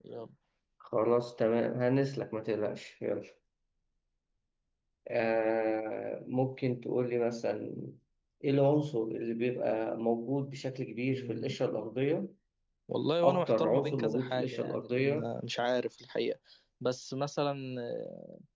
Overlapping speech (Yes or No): Yes